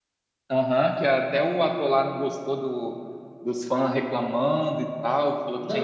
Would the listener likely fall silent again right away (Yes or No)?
No